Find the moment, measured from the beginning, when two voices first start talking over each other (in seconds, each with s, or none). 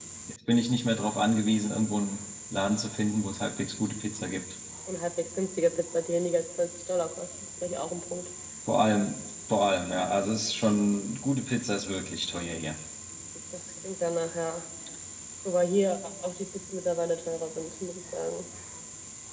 none